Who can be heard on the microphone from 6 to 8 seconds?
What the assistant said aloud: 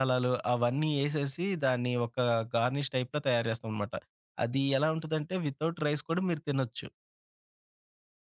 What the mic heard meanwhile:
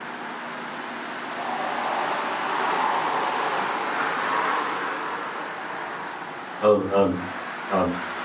user only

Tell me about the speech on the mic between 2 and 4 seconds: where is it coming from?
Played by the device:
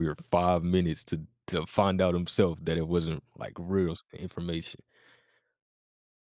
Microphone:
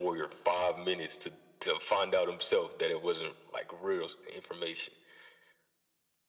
echo only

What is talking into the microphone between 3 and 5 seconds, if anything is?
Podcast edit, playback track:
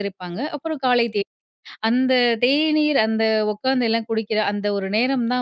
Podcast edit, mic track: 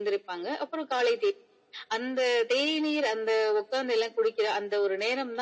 echo only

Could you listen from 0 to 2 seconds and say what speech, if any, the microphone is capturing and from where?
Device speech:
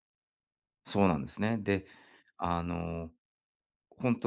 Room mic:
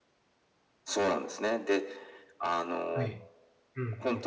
echo only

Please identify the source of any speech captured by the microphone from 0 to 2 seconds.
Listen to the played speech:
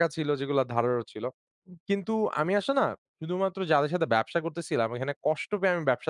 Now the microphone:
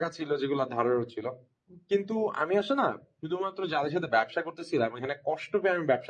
echo only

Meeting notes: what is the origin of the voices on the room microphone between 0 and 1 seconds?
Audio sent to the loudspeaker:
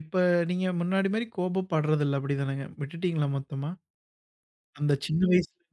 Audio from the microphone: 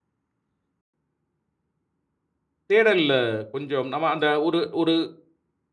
neither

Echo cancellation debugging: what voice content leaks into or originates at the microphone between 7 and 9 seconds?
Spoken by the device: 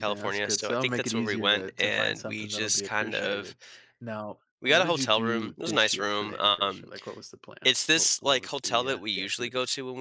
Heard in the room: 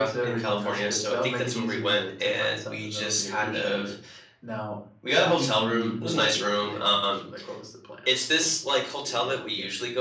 echo only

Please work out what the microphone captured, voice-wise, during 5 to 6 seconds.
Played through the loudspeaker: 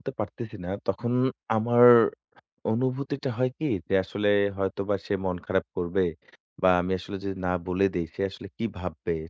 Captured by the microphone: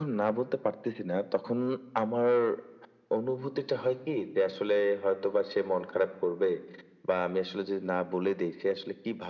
echo only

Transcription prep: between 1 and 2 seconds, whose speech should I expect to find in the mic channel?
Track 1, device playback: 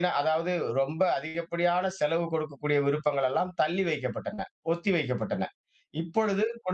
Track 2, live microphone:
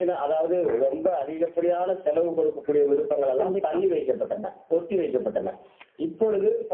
echo only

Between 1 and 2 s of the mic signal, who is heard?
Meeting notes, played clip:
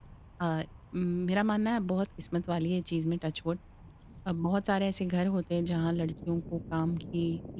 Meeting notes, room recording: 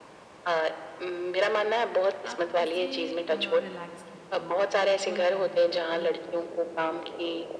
echo only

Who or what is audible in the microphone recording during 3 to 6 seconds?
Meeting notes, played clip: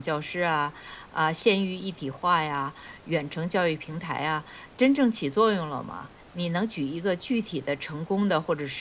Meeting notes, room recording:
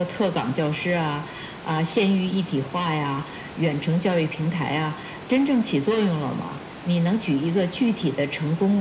echo only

